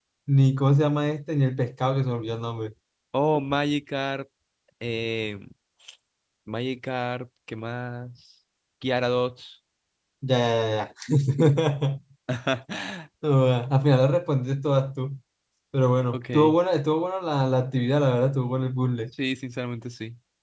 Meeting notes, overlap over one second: none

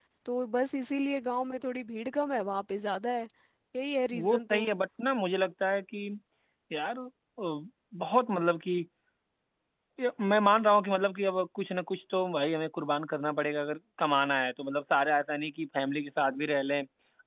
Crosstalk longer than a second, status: none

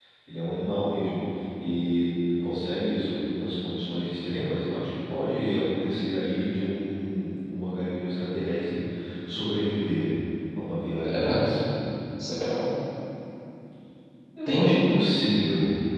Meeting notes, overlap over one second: none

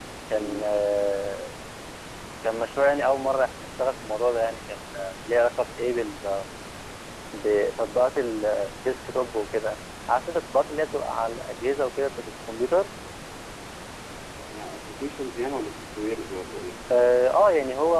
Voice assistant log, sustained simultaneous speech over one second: none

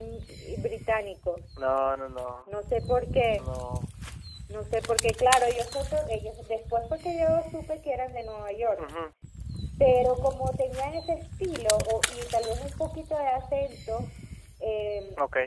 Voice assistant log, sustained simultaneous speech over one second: none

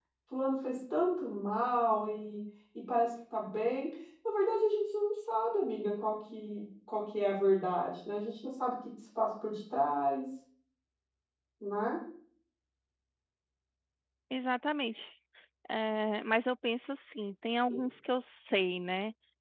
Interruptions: none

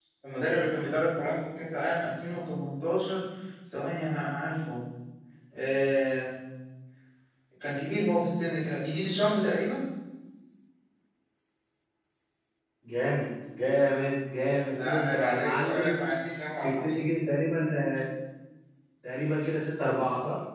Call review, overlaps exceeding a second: present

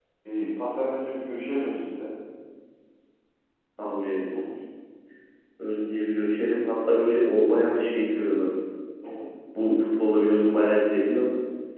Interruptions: none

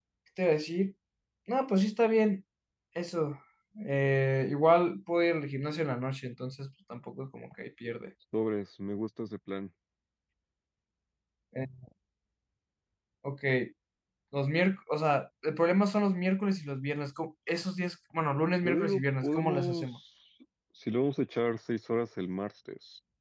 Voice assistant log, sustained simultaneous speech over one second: present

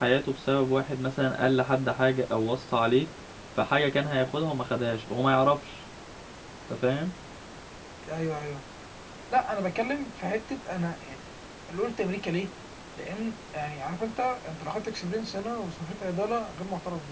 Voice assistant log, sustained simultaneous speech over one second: none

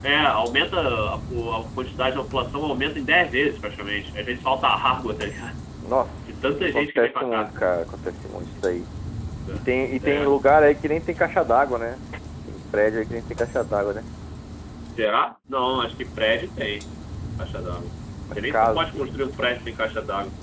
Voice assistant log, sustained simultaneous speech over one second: present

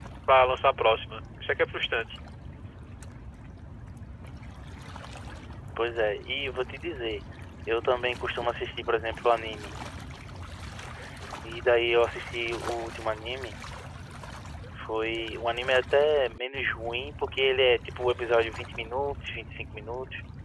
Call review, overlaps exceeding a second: none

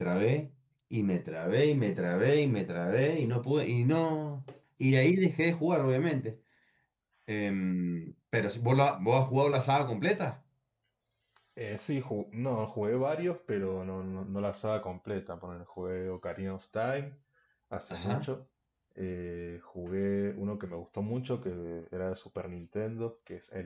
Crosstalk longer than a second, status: none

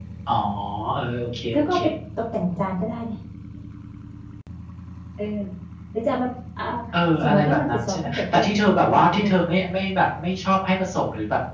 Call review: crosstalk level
present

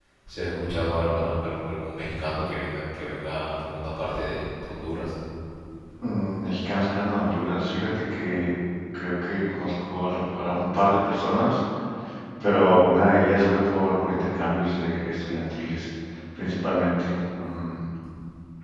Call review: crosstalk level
none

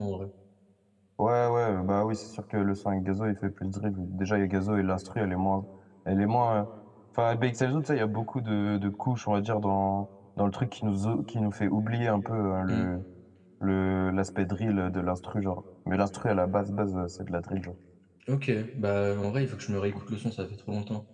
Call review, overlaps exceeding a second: none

